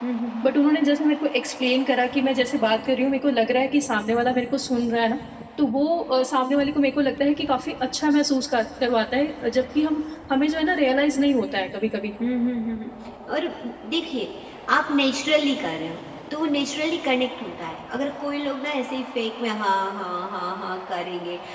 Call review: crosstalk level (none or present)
none